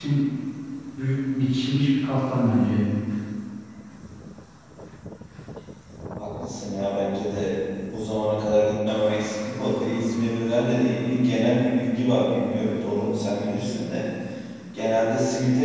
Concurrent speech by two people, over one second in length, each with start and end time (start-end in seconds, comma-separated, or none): none